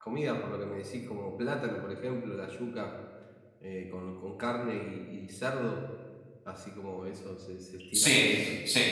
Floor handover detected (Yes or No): Yes